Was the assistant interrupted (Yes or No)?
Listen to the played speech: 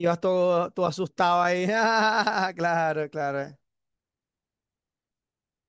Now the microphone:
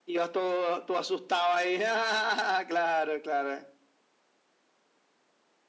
No